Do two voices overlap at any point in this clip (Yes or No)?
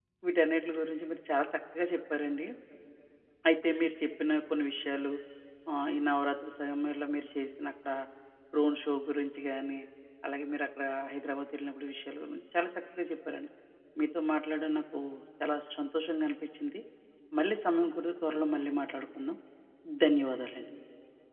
No